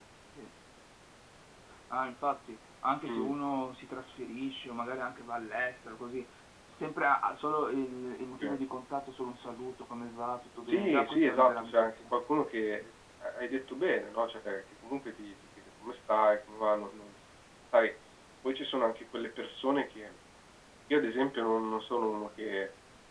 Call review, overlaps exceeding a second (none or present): present